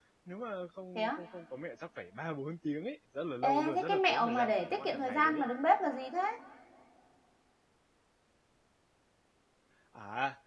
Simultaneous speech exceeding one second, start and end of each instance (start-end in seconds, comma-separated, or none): 3.4-5.4